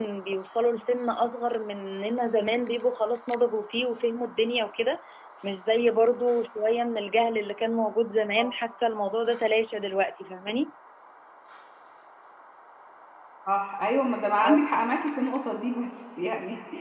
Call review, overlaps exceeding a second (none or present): none